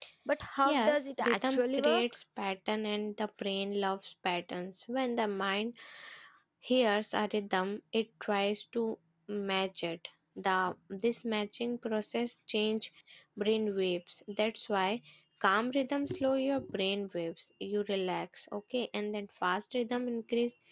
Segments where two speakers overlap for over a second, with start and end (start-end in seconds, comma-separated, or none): 0.6-2.0